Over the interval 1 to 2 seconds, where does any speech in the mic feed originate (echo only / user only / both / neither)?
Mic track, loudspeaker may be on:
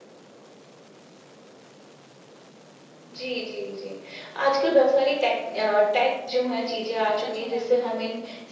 neither